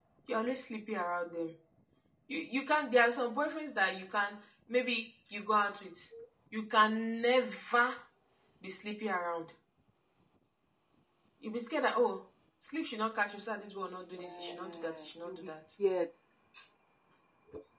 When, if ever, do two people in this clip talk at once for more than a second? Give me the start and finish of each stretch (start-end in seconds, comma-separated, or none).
14.1-15.6